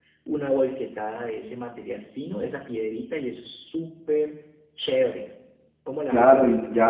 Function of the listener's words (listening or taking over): taking over